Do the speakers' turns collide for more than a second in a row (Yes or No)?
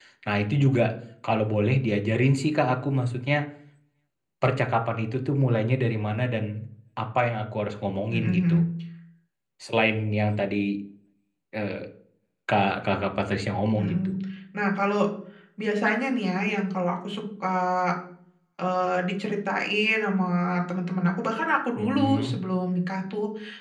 No